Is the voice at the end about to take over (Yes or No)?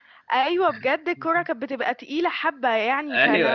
No